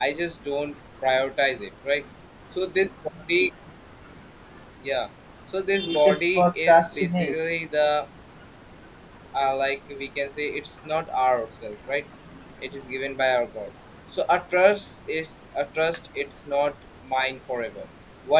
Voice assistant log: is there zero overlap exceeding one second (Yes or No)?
No